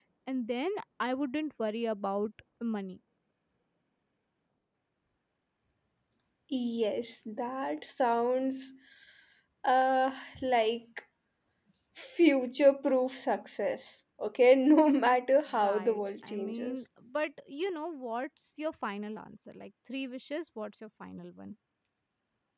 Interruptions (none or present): present